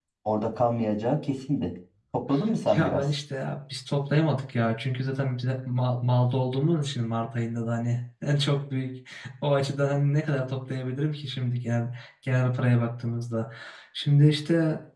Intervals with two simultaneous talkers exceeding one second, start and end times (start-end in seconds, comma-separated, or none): none